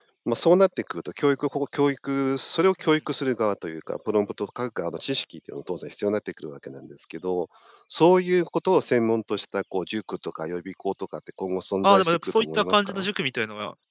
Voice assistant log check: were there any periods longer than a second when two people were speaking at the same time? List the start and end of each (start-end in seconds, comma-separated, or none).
11.8-13.1